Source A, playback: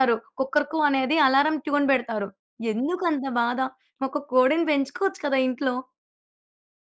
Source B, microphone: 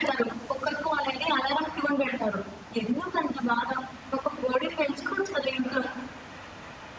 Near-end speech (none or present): none